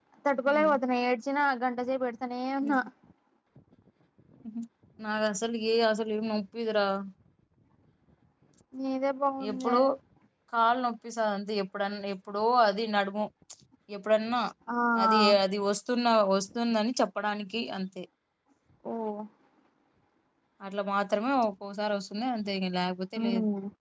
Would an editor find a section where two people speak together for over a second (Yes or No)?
No